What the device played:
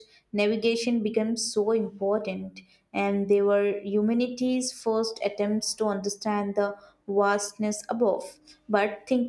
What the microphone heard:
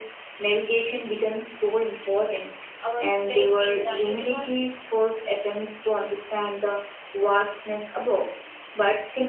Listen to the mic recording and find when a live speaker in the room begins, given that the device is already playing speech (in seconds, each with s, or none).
2.8 s